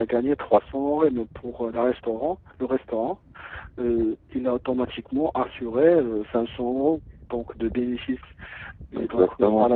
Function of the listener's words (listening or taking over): listening